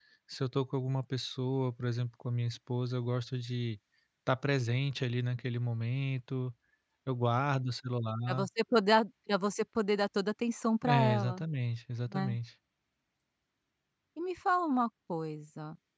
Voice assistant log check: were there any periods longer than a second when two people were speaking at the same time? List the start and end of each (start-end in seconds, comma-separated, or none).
none